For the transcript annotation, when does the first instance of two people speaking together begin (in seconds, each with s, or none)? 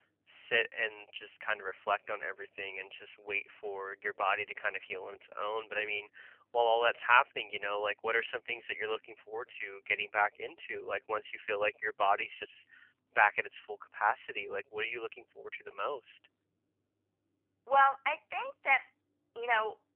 none